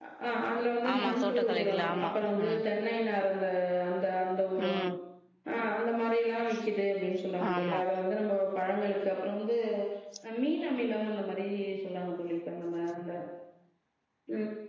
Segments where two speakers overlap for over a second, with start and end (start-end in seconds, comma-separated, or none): 0.9-2.6